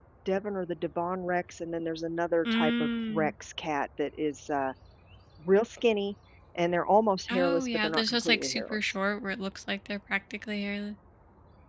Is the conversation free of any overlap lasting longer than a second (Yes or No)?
No